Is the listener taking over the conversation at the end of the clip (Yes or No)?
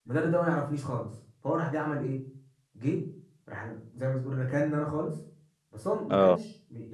No